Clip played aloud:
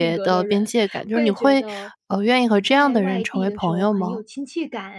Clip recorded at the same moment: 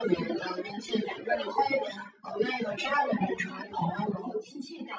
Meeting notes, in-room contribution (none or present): none